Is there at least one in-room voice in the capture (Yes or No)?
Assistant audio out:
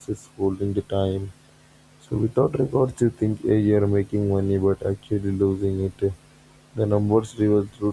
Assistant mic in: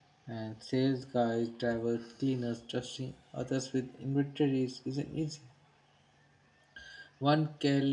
Yes